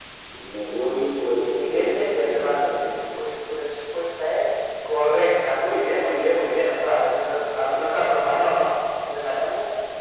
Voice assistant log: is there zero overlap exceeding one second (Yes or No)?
No